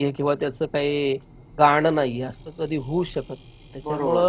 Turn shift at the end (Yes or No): No